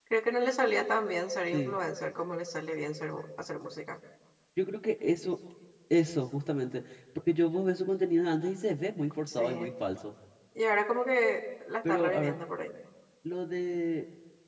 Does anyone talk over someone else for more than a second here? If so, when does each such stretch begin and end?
none

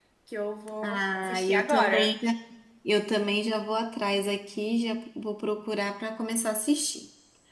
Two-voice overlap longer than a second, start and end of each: 0.8-2.1

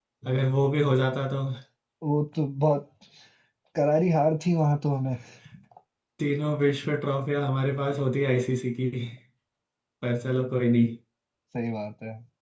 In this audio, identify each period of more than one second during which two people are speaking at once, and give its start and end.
none

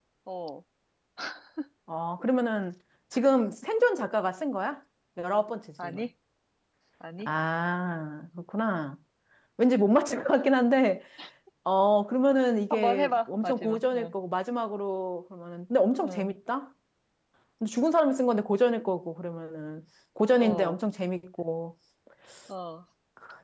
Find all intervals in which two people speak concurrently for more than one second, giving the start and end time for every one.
12.7-14.1

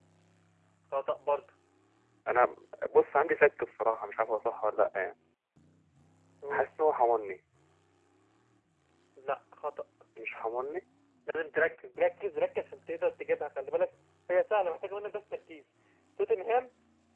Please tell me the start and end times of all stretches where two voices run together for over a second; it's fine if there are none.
none

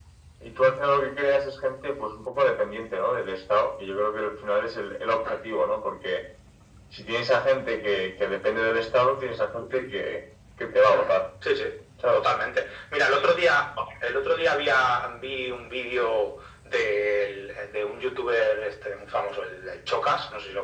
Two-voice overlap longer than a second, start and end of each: none

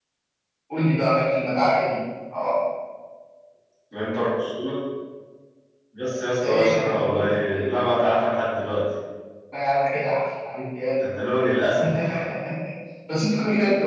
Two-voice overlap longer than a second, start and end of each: 6.3-7.6

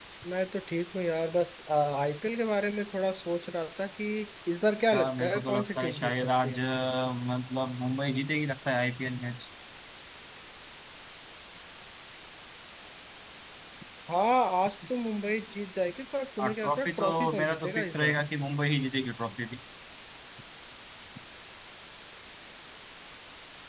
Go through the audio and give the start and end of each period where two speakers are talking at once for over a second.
4.9-6.6, 16.4-18.2

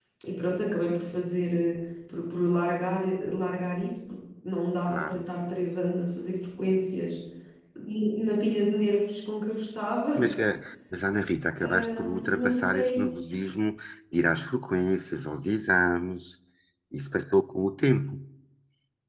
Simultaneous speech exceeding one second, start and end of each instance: 11.7-13.1

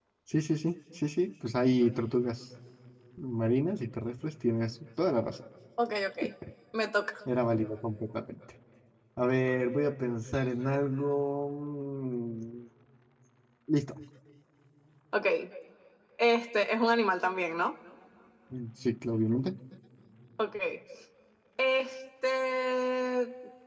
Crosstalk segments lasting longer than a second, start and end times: none

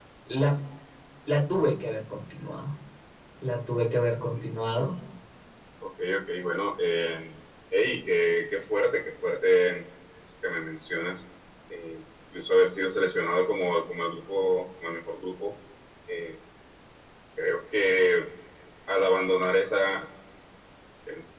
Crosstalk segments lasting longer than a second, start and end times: none

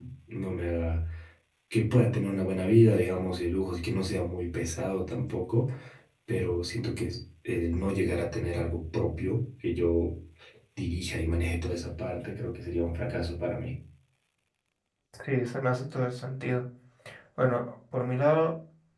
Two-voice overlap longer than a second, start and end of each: none

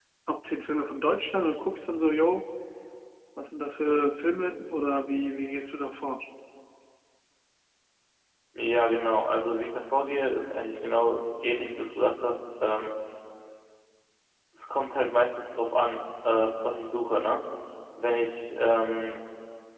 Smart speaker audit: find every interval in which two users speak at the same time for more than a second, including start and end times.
none

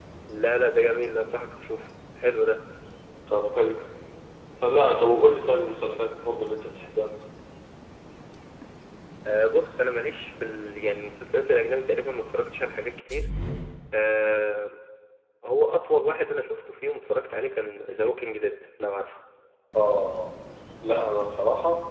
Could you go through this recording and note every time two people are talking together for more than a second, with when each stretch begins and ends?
none

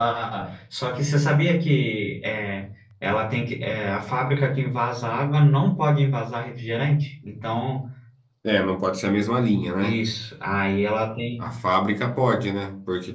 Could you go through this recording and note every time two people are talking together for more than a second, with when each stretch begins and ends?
none

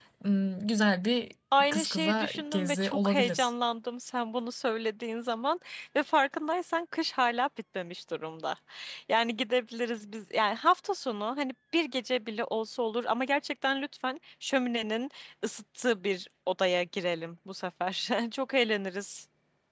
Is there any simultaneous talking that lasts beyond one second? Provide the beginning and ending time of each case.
1.6-3.4

